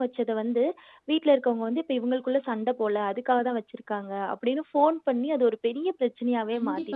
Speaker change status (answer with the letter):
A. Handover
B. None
A